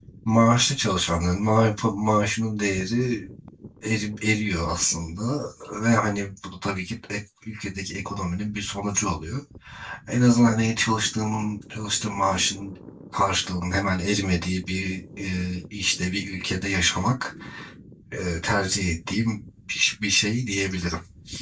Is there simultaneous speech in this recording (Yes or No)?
No